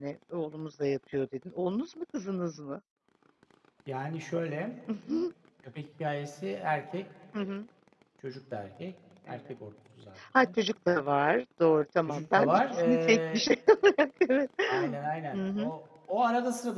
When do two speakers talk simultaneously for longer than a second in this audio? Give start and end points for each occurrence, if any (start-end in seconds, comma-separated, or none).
12.1-13.5